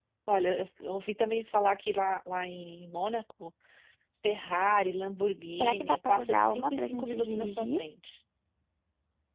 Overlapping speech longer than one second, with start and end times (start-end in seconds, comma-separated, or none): 5.6-7.8